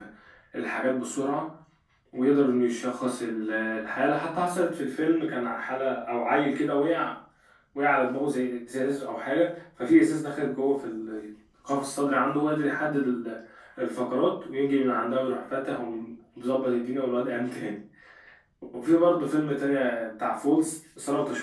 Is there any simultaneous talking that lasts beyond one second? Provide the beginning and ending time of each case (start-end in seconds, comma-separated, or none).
none